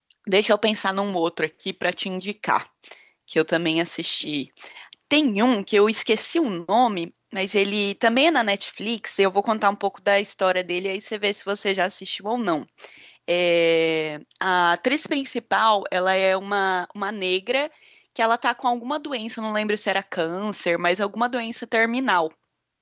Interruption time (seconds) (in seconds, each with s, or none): none